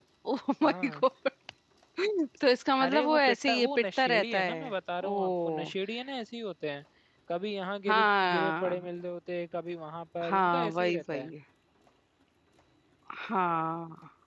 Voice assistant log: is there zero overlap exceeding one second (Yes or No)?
No